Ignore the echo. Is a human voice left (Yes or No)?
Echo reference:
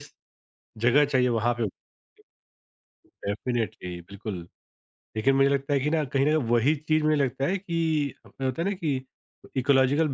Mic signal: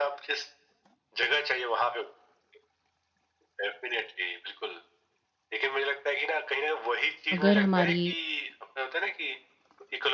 Yes